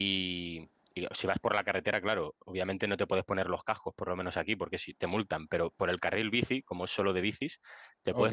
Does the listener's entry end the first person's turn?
No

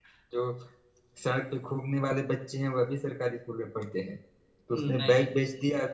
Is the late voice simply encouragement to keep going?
Yes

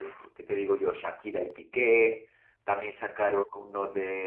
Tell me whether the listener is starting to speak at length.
No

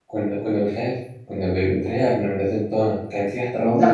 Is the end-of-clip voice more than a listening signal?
Yes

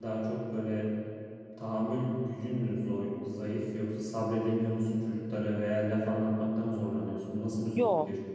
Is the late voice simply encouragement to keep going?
No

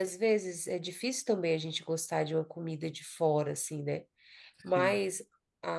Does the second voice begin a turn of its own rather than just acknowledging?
No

